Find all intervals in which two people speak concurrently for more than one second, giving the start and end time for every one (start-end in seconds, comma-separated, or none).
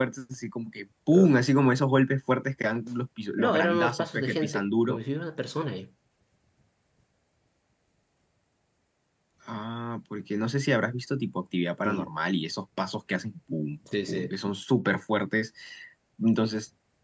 3.4-5.0